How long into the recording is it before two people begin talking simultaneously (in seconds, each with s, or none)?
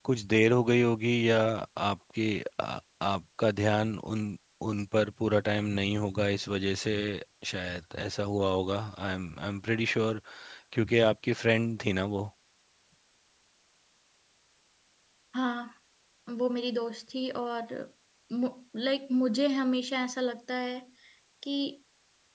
none